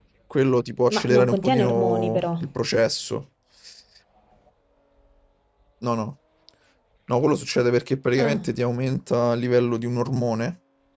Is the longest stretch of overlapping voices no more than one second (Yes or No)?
No